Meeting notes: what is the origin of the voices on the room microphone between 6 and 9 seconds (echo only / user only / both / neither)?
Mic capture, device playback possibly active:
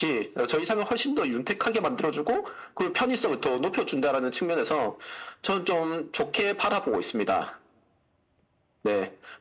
echo only